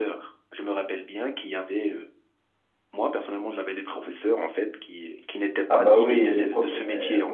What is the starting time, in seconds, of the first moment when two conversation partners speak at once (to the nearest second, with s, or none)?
6 s